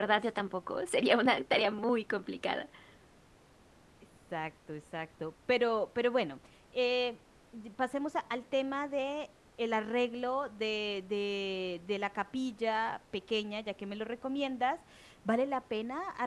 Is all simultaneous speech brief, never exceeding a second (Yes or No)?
Yes